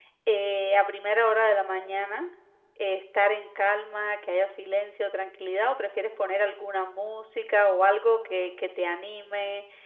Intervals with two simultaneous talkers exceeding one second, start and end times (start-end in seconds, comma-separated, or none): none